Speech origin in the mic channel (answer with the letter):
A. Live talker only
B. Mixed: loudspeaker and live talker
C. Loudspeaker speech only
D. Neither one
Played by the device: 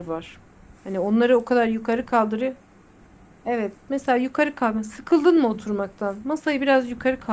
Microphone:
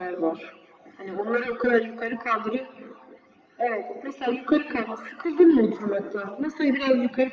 C